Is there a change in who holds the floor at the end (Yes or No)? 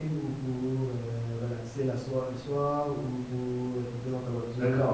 Yes